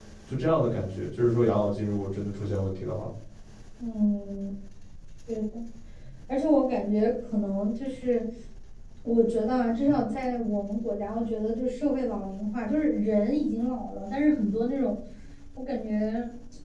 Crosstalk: none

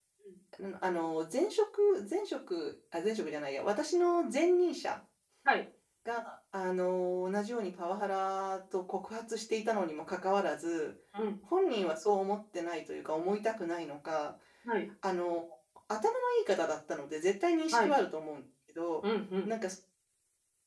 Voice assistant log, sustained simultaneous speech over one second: none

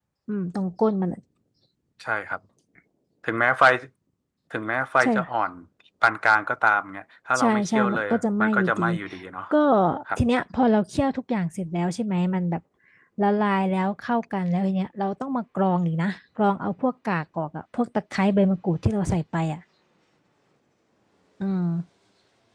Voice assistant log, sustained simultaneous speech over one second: present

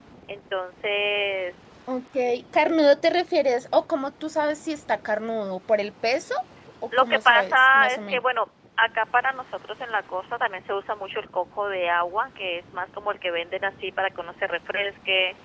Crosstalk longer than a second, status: present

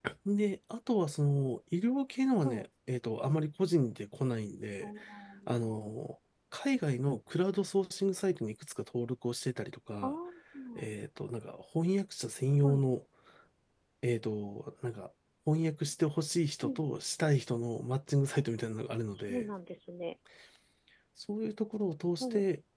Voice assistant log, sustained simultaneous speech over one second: none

